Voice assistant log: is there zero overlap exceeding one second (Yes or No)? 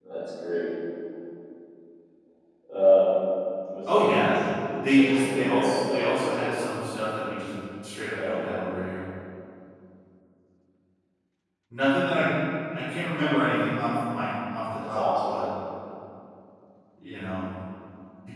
No